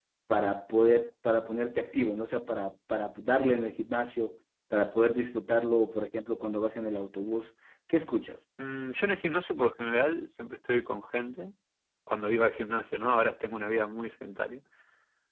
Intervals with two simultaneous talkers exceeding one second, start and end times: none

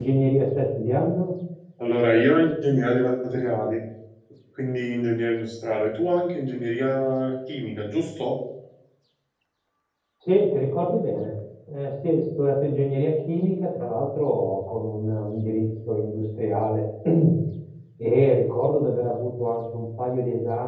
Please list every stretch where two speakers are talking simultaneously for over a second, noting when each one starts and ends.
none

